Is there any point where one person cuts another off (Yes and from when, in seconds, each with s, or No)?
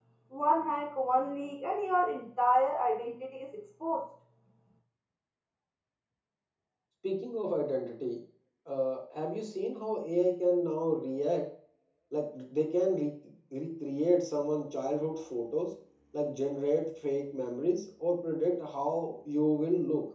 No